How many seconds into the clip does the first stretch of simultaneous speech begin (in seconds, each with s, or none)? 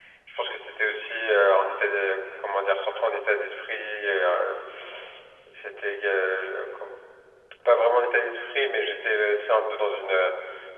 none